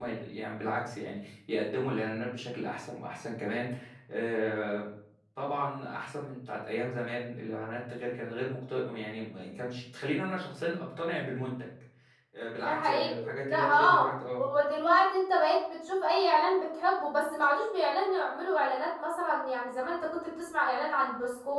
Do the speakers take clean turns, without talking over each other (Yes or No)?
No